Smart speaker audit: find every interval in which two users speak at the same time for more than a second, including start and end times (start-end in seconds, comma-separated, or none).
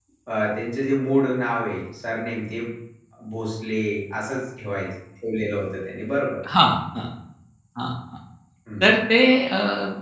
none